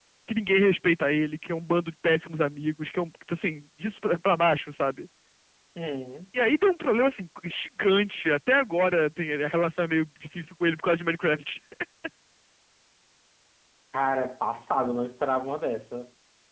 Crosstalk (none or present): none